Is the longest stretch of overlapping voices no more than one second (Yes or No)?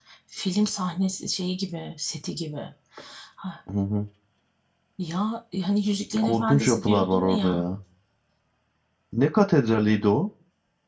No